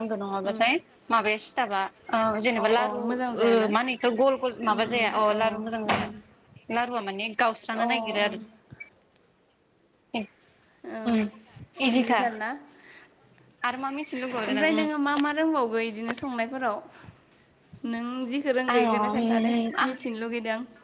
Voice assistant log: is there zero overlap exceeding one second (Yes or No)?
No